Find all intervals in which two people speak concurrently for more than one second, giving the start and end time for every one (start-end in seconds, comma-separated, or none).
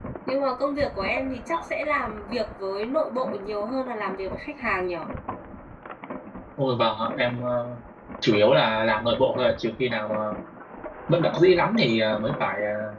none